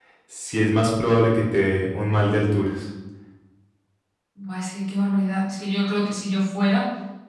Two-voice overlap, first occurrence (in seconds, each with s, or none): none